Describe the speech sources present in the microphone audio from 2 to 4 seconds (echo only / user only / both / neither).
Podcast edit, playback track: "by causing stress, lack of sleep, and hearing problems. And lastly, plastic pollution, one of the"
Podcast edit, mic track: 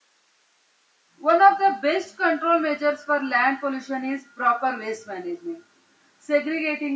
user only